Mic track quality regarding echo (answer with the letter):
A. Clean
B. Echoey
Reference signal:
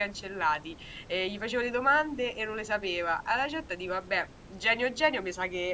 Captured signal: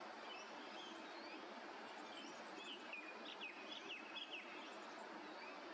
A